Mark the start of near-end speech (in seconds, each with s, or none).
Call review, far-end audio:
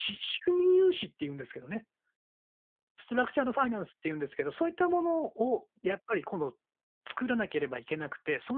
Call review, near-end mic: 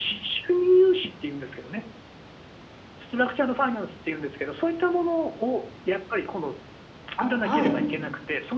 7.2 s